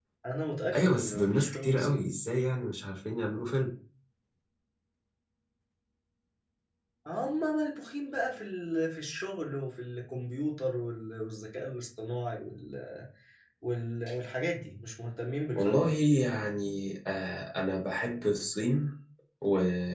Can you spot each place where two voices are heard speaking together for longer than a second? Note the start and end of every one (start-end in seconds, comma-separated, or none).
0.7-2.1